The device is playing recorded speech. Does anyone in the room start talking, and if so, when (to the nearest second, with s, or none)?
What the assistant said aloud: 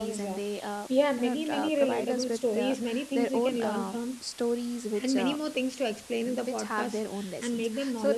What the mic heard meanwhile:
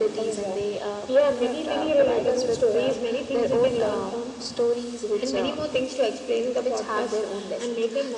none